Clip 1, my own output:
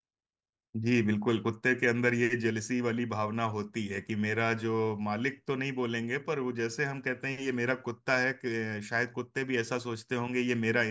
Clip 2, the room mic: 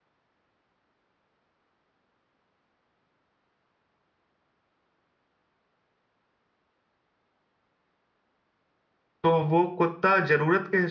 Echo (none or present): none